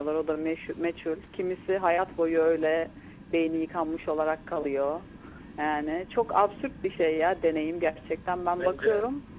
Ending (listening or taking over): taking over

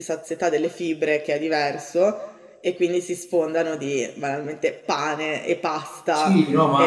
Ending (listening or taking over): taking over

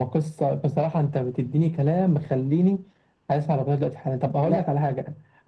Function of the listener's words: listening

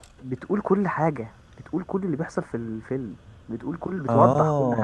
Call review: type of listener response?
taking over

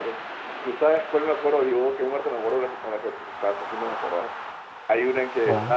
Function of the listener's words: listening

